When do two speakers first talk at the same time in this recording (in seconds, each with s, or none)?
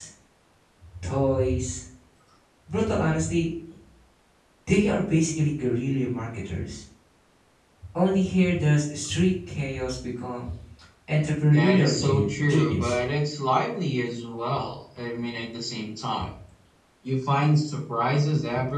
11.5 s